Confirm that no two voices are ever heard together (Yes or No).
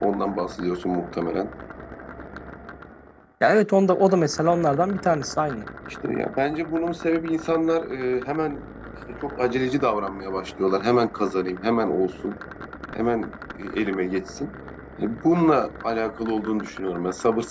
Yes